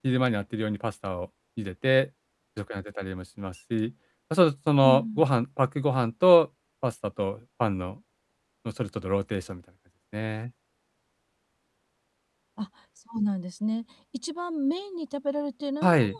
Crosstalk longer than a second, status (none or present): none